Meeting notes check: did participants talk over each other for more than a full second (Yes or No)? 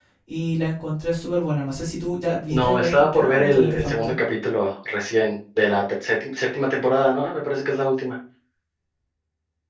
Yes